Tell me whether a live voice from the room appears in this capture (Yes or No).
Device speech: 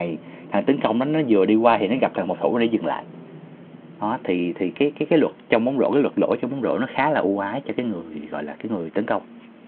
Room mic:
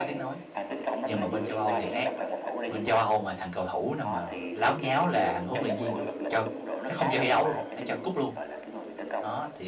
Yes